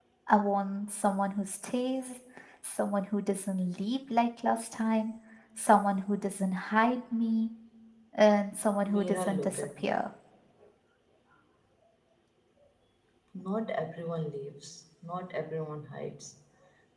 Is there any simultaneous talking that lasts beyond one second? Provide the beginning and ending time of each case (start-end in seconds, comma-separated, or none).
8.8-10.0